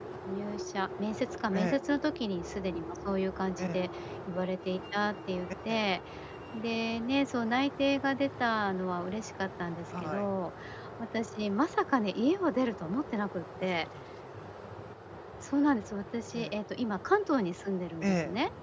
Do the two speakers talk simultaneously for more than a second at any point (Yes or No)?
No